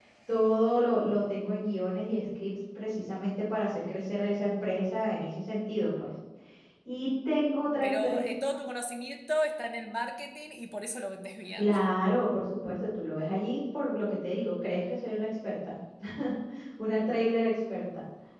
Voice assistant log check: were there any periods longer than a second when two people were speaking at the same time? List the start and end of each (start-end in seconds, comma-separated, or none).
none